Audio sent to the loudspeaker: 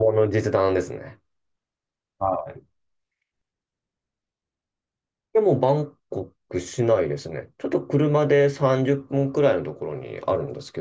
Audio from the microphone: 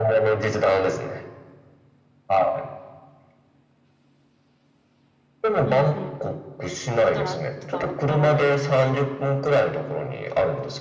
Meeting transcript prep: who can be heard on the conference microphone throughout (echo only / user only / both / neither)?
both